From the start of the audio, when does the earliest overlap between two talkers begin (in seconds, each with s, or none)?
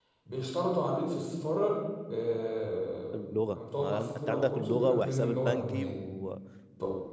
3.1 s